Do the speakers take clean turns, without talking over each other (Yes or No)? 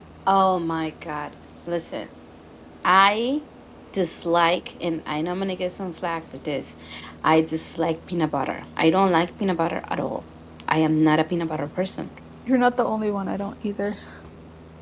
Yes